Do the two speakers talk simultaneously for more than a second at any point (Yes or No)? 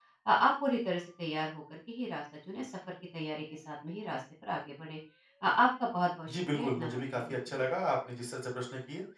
Yes